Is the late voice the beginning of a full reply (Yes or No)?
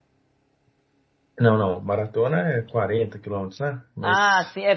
Yes